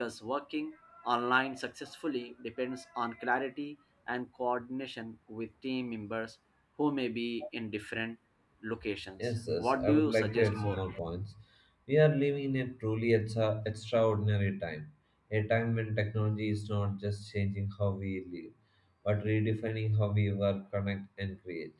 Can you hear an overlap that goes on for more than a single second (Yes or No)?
Yes